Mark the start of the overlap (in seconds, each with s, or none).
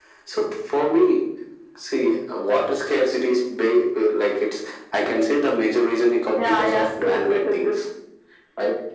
6.3 s